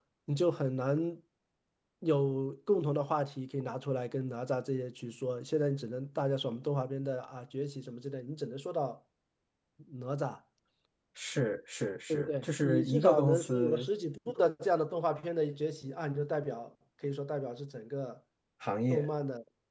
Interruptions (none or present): present